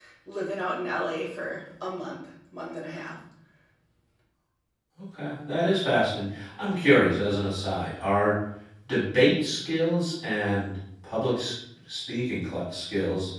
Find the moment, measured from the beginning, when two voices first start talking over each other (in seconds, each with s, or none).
none